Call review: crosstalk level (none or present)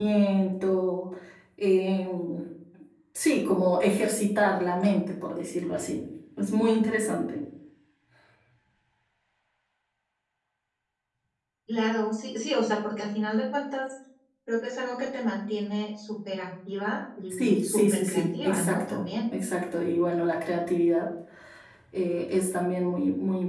present